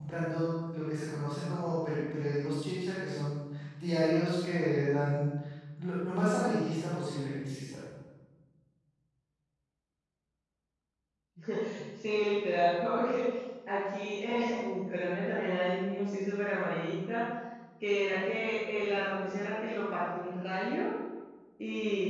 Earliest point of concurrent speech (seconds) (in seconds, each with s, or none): none